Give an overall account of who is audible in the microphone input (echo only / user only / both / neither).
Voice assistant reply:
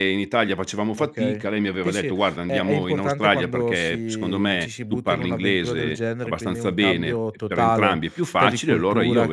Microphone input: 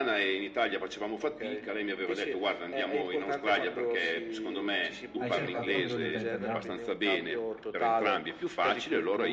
both